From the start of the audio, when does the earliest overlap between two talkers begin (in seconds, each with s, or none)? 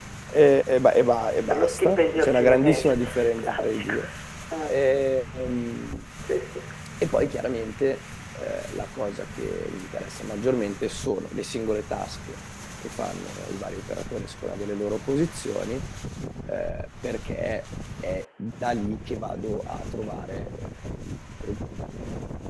1.5 s